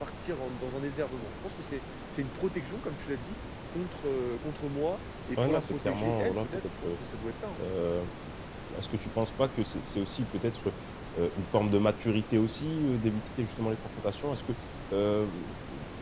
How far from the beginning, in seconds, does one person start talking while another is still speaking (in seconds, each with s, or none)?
5.3 s